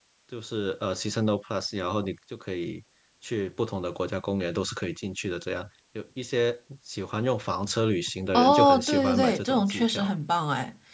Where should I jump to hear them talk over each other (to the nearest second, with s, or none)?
8 s